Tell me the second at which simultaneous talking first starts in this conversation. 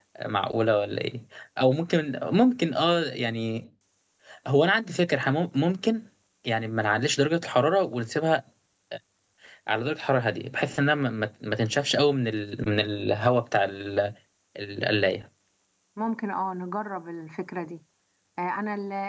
none

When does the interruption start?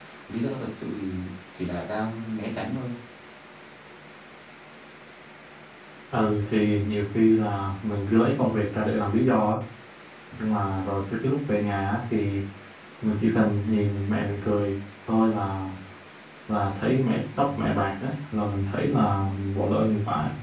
none

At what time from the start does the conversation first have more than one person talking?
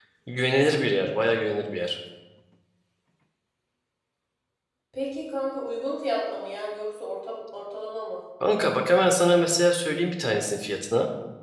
none

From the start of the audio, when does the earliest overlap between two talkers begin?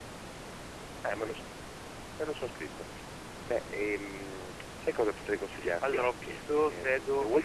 5.8 s

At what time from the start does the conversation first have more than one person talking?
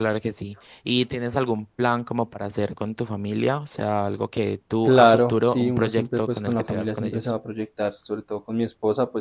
4.8 s

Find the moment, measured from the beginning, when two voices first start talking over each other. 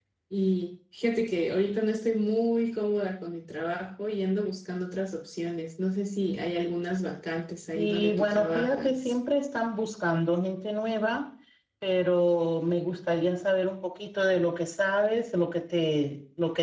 7.8 s

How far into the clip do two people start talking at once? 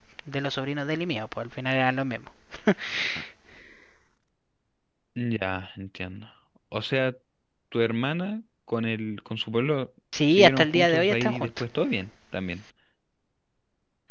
10.1 s

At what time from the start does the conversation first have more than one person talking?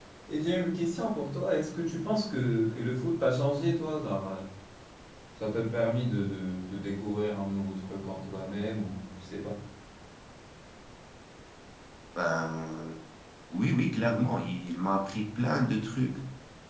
none

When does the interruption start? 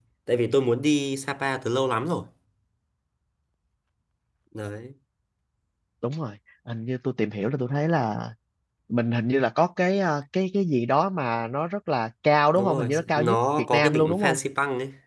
12.6 s

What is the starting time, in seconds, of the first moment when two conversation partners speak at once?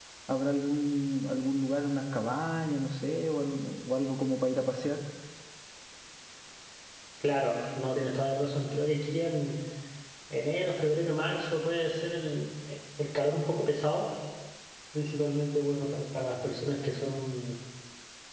none

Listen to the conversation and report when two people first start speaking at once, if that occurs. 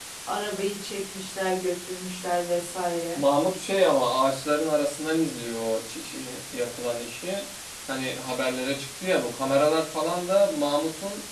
none

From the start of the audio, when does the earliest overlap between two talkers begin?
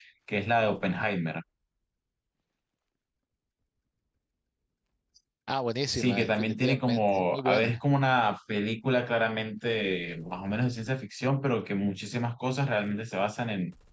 5.9 s

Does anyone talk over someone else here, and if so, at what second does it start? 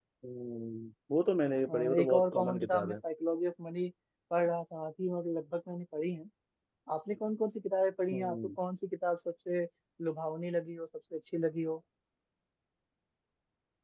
1.7 s

